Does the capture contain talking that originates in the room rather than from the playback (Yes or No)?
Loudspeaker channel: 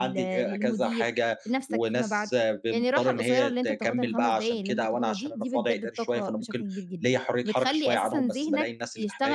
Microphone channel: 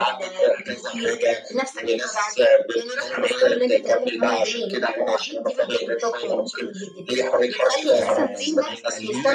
Yes